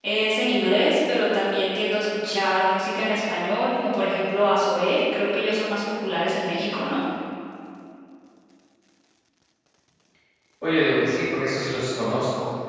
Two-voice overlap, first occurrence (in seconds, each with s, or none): none